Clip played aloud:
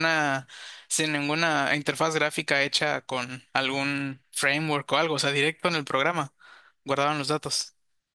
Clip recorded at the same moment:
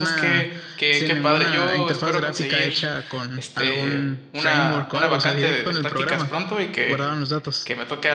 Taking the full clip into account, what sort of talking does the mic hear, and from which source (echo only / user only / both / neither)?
both